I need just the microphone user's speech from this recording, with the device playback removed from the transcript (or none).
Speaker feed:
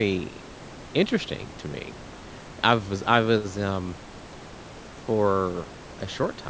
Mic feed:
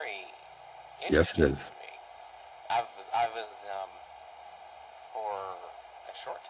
Yes, it is.